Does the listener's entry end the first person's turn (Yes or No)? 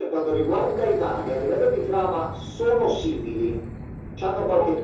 No